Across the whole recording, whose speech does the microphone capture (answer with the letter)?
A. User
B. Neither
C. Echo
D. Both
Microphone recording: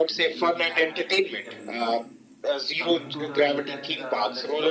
D